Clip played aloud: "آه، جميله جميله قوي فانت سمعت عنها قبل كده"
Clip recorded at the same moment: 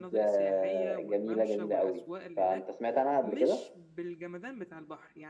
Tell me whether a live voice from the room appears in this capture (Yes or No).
Yes